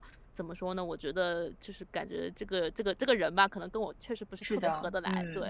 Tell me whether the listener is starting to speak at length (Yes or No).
Yes